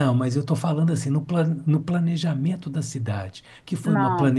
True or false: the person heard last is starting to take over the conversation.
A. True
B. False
B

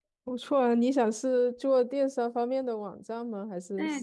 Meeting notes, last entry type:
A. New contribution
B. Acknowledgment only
A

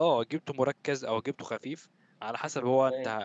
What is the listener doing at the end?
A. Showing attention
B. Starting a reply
A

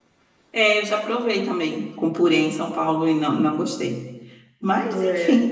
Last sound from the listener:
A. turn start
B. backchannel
B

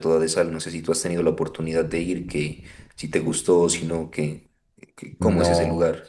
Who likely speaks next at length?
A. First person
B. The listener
B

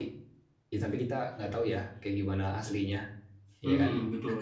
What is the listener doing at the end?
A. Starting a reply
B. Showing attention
A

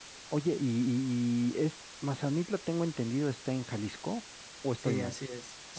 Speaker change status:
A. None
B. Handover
B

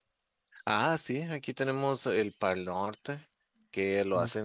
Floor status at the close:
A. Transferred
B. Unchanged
B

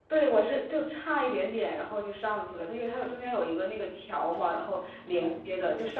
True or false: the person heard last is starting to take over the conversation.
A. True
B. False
B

